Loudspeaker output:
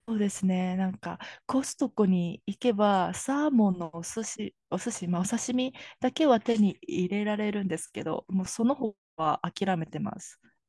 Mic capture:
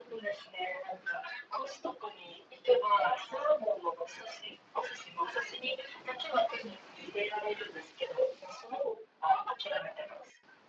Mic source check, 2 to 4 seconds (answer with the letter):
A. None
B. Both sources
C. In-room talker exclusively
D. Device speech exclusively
D